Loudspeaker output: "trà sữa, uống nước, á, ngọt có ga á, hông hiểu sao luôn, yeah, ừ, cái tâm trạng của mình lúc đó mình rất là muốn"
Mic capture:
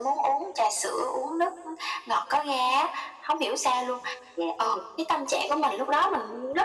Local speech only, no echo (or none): none